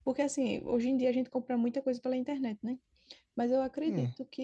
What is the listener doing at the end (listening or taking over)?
listening